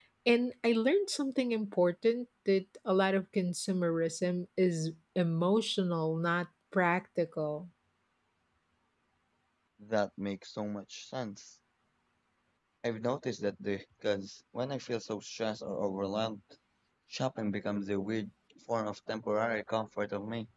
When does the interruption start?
none

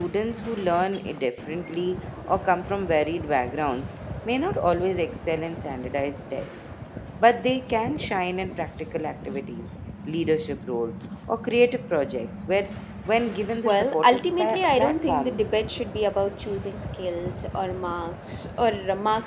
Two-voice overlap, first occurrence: 13.6 s

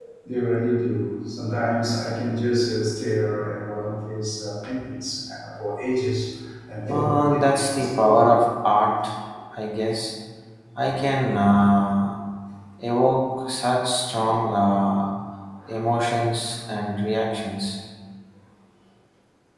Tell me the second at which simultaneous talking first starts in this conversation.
6.9 s

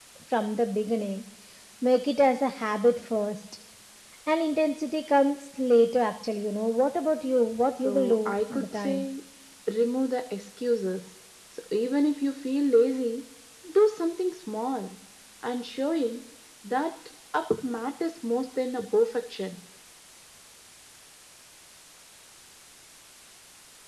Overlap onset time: 7.8 s

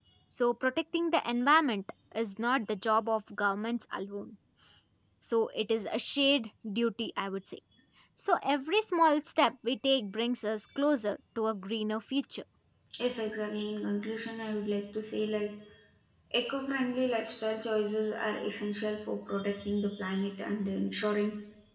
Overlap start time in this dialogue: none

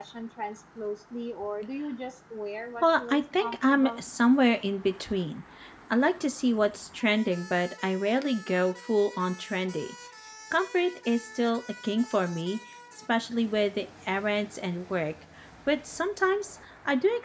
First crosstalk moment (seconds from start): 2.8 s

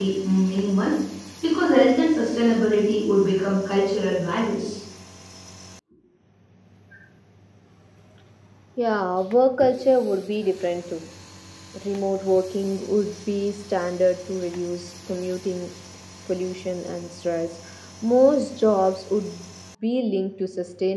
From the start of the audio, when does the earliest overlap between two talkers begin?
none

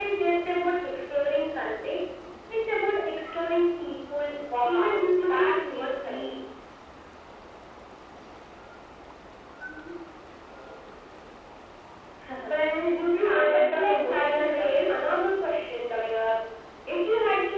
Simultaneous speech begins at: 4.7 s

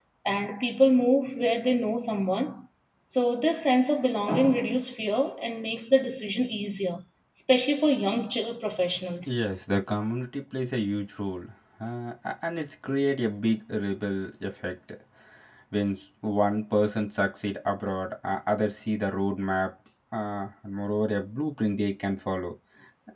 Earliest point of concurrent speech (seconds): none

